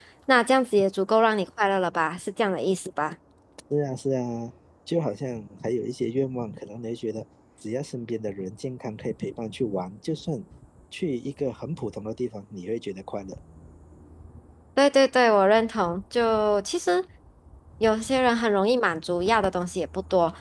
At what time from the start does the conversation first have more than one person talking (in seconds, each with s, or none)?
none